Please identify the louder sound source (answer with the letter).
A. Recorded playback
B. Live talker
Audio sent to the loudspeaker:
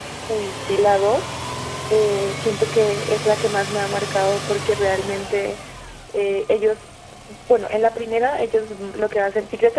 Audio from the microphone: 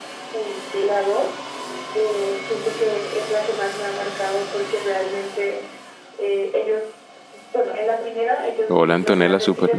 B